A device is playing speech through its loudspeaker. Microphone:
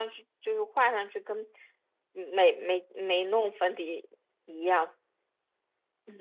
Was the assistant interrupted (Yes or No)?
Yes